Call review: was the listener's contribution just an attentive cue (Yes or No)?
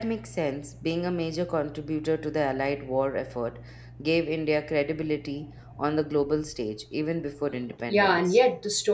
No